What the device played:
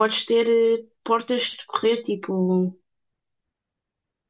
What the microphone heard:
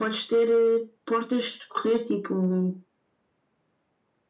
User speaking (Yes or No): No